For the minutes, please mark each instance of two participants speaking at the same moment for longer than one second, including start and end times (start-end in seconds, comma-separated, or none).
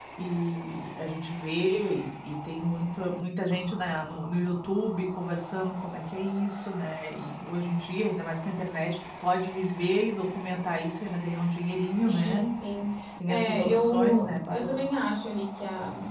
13.3-14.8